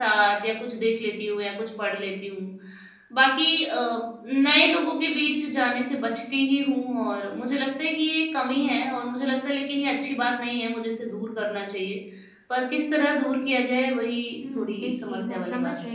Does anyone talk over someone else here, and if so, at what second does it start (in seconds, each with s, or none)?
14.4 s